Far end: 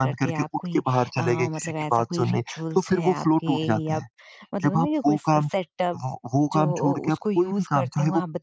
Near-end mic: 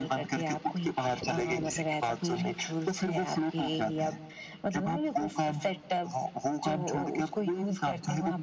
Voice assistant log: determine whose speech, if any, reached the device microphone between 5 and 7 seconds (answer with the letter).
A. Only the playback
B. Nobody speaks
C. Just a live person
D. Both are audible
A